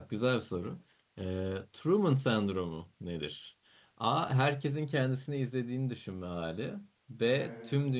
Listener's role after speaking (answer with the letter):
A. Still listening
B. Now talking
A